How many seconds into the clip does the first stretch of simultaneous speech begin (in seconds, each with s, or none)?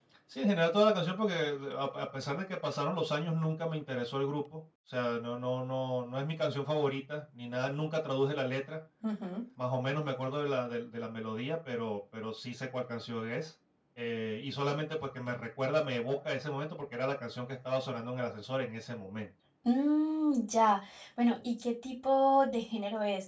none